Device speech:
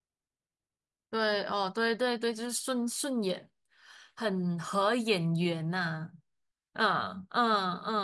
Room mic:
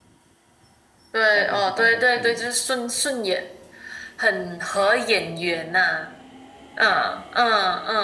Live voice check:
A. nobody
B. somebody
B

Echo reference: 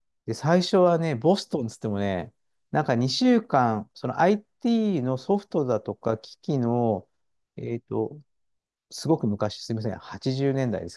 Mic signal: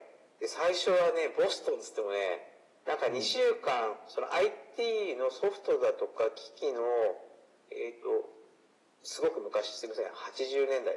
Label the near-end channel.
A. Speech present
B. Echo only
A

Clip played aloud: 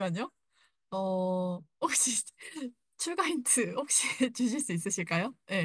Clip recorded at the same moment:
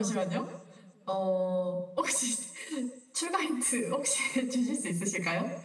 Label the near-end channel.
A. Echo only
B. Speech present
A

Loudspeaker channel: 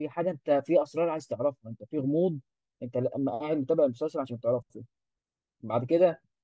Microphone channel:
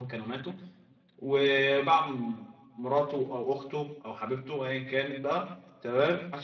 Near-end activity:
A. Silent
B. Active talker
B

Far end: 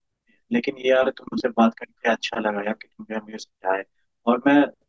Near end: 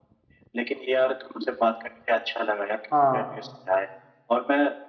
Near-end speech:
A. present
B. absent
A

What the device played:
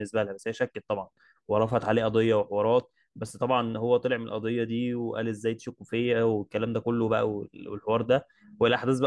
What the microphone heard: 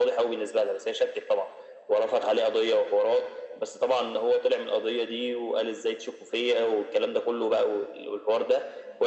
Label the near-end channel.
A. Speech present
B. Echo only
B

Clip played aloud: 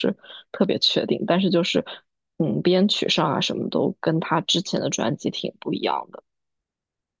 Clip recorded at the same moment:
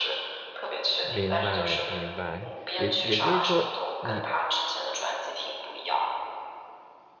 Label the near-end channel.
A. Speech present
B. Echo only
A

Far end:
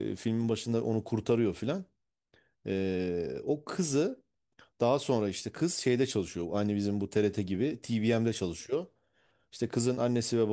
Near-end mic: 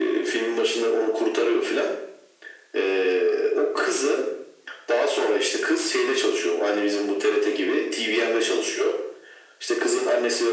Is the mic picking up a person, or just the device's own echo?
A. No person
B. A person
A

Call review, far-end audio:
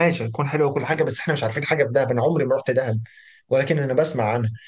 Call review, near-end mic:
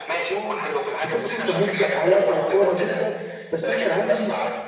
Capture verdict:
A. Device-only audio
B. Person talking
B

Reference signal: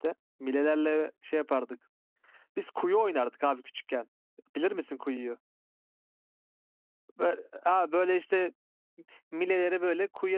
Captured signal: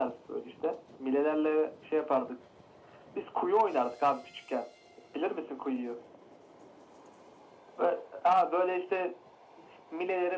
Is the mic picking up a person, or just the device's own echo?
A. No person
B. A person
A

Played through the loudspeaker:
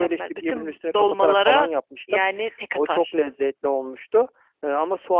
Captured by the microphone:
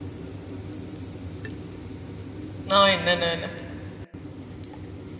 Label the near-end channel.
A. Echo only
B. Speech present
B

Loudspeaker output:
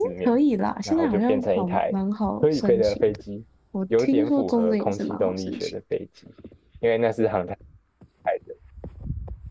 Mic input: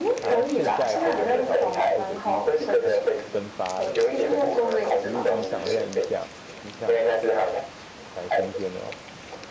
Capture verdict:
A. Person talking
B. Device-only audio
A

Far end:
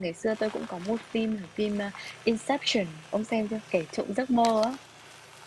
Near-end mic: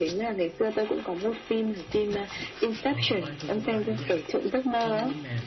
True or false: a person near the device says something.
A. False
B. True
B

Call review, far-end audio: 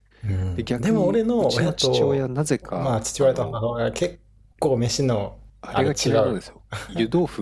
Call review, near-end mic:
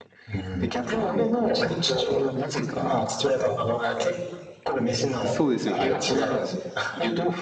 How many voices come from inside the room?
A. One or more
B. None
A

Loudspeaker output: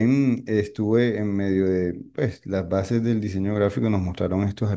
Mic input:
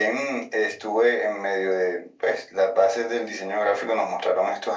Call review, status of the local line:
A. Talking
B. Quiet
B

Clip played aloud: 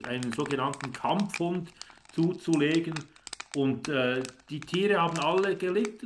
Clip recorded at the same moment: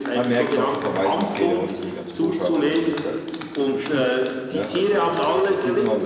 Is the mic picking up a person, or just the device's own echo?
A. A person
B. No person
A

